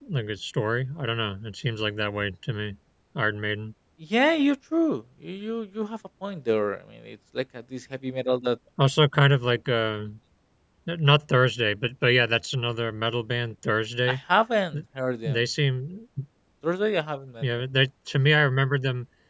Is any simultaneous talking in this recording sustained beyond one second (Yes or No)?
No